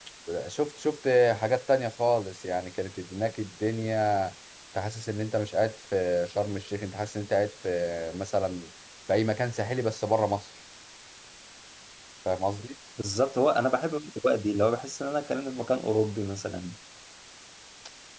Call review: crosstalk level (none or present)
none